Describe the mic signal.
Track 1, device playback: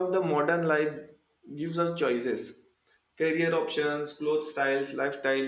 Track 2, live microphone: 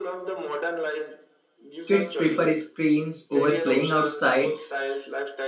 both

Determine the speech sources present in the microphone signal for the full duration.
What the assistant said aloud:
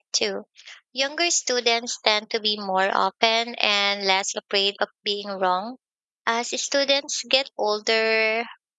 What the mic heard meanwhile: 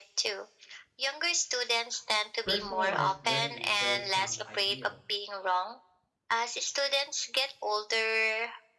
both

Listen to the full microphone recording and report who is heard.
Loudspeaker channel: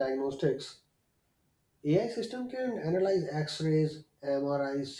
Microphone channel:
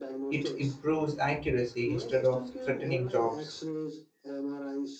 both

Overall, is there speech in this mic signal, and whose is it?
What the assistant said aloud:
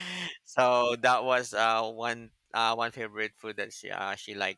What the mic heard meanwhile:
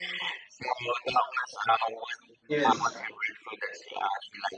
both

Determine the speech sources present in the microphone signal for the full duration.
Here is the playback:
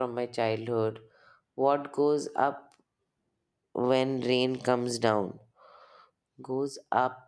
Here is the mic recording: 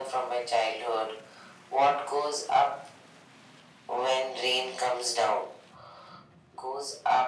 echo only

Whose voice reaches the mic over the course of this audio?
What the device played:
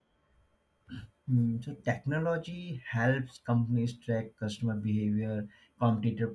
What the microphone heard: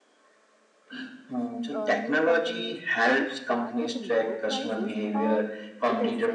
both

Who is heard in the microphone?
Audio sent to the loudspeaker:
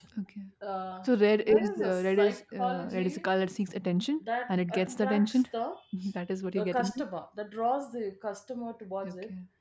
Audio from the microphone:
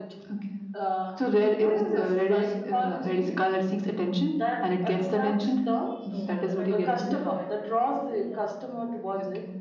both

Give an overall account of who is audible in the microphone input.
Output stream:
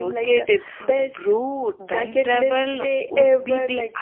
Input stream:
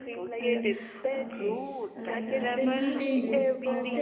both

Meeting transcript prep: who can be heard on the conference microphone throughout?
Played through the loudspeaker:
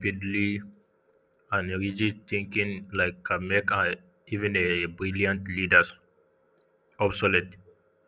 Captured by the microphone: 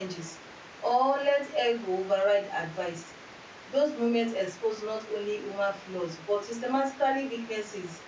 user only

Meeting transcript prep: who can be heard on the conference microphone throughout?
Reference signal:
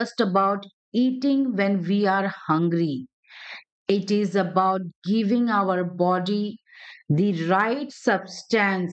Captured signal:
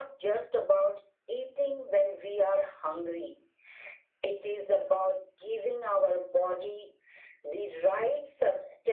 echo only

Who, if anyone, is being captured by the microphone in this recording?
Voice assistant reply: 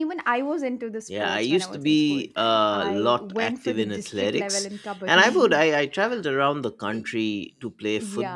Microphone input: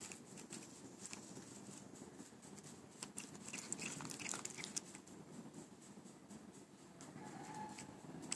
neither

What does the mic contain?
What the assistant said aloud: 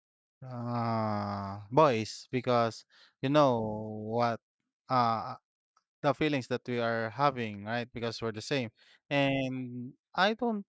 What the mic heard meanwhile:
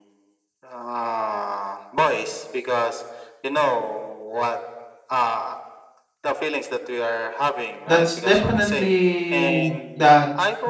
both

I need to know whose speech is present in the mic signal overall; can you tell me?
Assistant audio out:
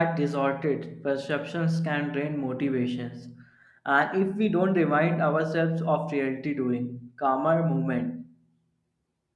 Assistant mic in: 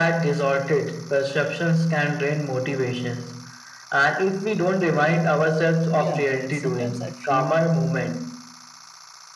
both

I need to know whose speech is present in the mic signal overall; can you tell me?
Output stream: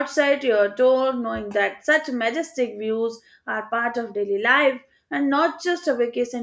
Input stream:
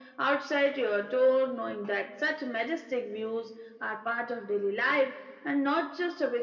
echo only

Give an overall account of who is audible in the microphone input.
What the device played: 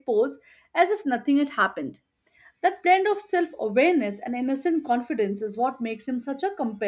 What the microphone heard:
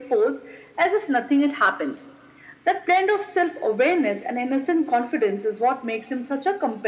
echo only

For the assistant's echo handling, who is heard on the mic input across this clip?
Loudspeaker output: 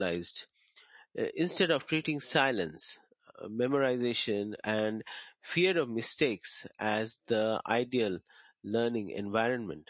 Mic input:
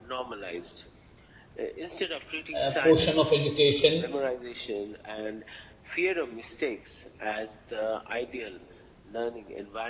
both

